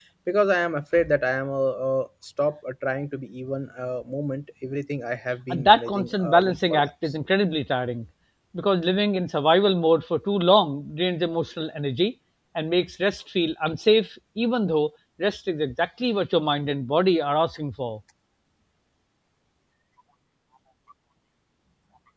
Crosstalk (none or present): present